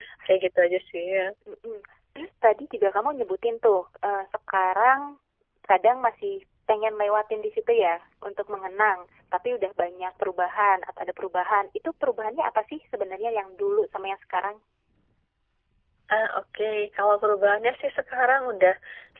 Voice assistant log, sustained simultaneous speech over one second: none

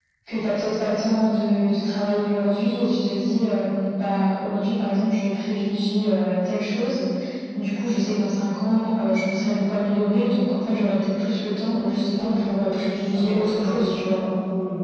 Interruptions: present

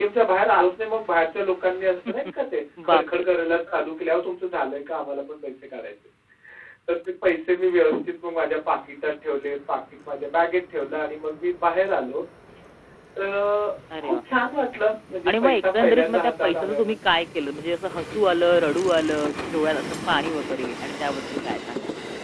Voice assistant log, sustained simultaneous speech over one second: present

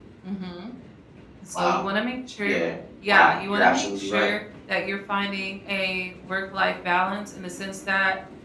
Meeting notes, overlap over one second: present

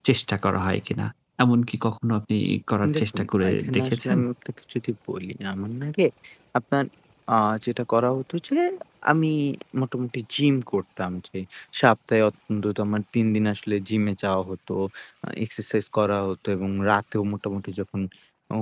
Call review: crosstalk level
present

